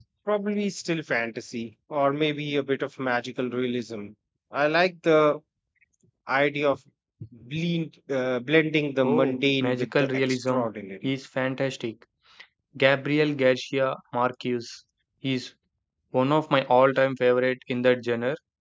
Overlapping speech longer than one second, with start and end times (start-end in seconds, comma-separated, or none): 9.0-10.6